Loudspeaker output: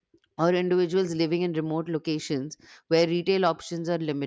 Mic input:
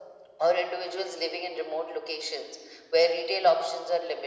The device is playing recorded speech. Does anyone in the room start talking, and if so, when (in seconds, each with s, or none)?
none